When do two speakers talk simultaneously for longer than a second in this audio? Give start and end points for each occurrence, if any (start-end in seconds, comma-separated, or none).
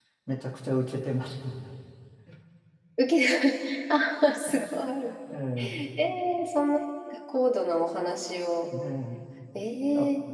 none